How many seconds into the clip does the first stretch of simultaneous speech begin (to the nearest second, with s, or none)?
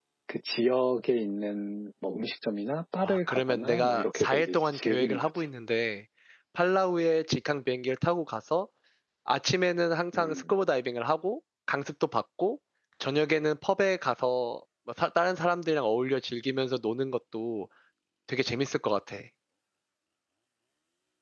3 s